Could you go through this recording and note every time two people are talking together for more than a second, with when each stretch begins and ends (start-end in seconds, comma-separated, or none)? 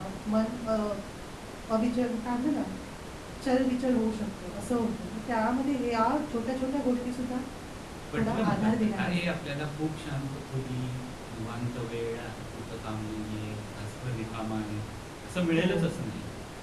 8.2-9.4